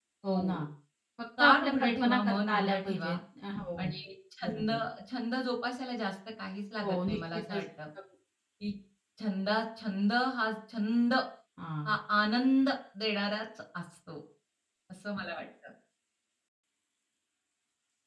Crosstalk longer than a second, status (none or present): present